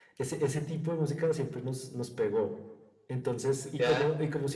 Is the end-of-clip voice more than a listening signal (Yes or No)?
No